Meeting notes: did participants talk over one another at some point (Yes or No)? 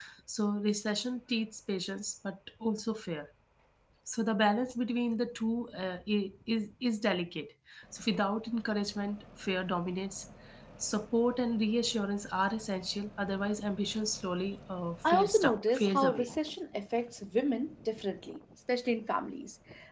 Yes